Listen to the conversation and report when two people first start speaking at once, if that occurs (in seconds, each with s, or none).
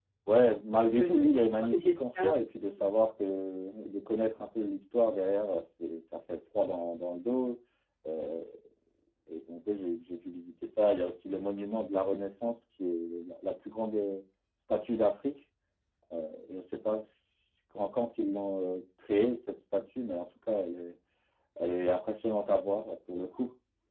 1.0 s